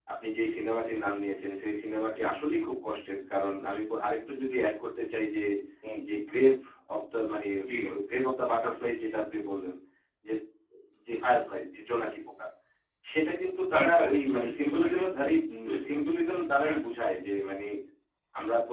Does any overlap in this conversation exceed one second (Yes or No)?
Yes